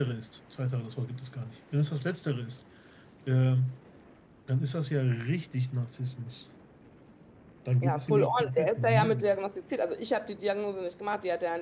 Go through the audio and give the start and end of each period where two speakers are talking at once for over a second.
7.8-9.4

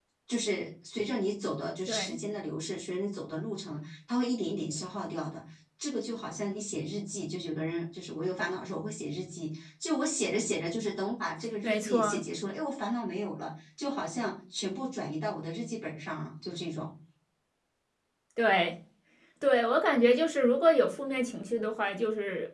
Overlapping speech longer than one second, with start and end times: none

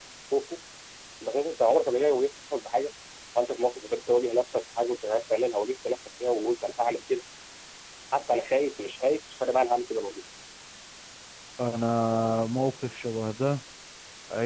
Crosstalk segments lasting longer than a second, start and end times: none

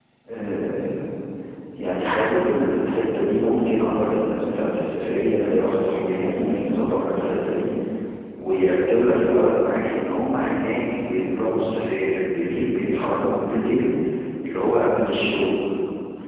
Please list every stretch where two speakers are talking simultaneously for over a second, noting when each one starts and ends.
none

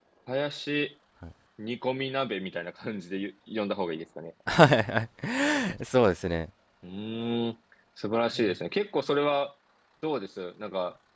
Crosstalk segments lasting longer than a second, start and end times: none

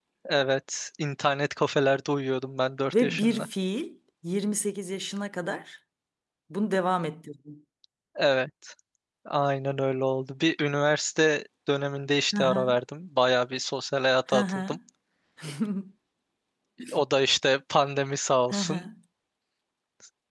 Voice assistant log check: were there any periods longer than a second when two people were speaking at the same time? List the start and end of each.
none

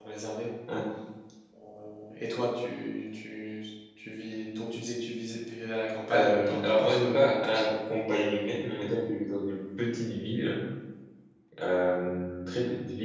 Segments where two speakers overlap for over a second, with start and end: 6.1-7.7

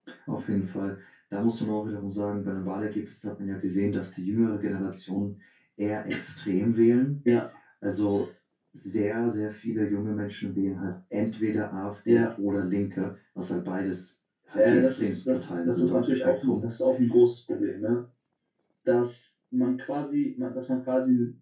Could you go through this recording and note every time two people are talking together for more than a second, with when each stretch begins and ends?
14.6-16.6

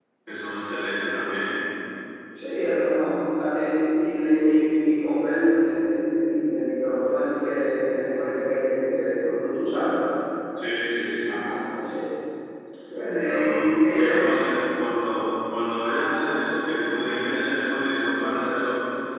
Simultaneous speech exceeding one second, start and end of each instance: 13.1-14.3

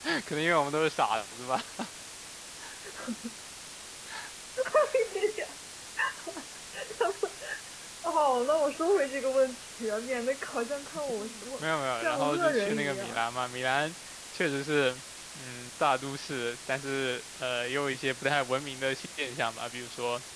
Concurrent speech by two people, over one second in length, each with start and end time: 11.6-13.2

